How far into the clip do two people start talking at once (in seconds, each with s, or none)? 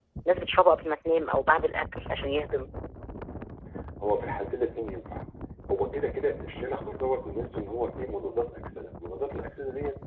none